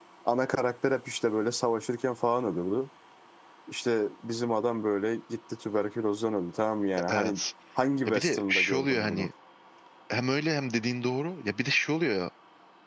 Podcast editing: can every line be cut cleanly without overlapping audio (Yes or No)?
No